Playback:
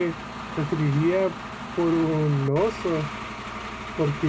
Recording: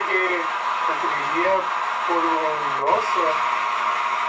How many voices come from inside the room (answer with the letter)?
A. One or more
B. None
B